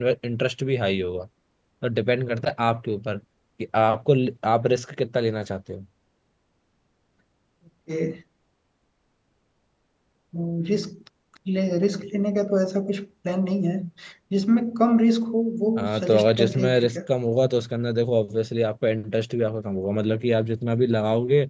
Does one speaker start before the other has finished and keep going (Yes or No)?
Yes